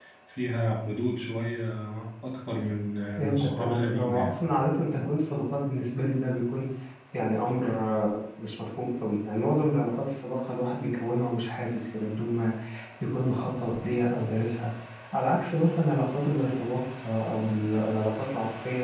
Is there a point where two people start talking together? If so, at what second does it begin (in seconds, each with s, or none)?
3.2 s